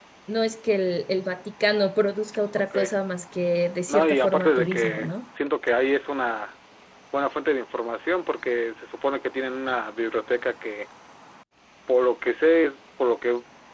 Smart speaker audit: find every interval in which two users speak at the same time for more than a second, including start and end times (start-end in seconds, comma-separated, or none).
3.9-5.1